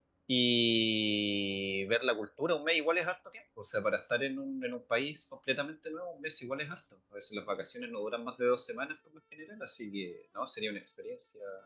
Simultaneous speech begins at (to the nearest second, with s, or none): none